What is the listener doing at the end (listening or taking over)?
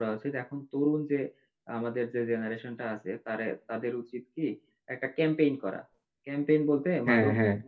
listening